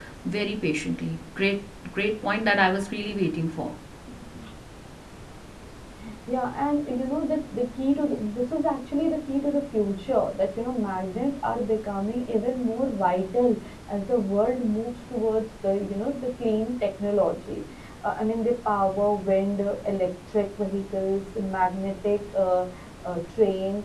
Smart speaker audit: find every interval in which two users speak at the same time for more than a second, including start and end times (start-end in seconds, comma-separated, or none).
none